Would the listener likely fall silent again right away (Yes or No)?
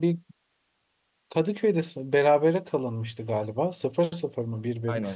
No